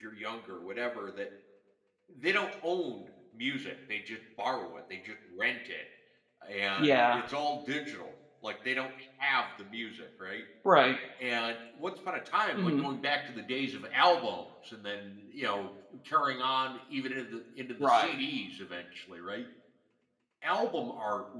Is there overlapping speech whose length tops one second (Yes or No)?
No